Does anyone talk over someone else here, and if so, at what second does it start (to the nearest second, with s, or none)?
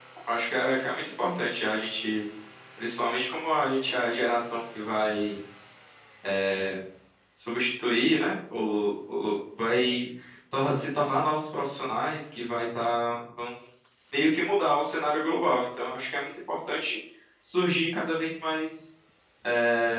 none